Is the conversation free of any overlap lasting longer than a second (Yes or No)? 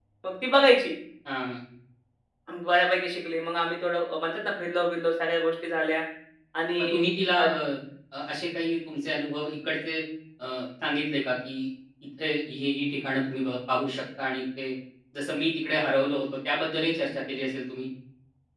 Yes